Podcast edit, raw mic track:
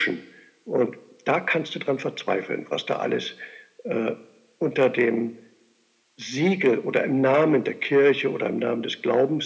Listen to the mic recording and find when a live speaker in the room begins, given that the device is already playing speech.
none

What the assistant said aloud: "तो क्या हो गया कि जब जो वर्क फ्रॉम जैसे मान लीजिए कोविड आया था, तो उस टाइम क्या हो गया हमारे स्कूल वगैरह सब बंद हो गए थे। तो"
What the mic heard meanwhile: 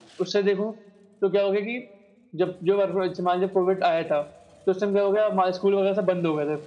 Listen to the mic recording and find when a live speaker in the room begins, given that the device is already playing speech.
none

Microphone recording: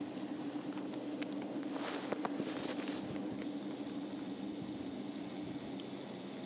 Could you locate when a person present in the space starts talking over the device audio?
none

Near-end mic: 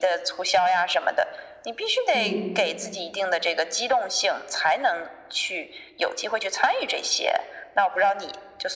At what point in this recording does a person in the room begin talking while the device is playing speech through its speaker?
2.1 s

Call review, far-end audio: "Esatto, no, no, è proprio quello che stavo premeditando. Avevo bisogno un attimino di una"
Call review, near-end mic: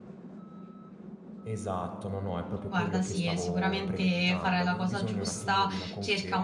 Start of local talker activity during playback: 2.7 s

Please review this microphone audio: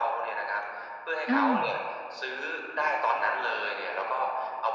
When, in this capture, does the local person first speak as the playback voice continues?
1.3 s

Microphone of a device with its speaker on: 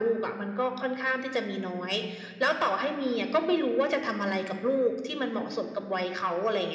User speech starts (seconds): none

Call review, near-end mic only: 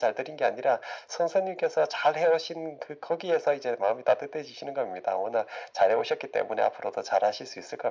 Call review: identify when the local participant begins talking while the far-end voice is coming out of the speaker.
none

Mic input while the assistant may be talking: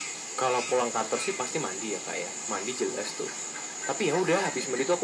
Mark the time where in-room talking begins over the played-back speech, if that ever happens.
none

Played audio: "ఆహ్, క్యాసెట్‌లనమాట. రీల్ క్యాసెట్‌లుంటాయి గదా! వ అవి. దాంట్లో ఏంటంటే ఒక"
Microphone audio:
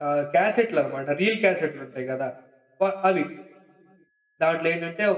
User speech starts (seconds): none

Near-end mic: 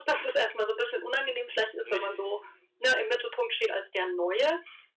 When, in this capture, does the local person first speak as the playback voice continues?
1.8 s

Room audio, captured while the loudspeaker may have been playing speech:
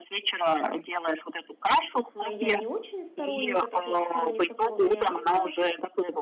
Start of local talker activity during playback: 2.2 s

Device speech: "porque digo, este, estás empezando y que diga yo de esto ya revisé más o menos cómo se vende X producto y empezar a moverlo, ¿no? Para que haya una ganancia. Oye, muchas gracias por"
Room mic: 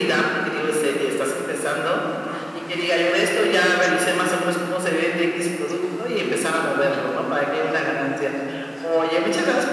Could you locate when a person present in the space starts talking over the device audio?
none

